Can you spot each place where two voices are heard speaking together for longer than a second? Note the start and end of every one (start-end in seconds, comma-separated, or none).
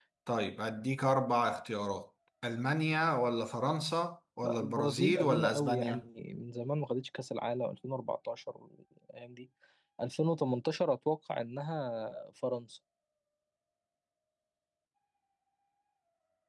4.4-6.0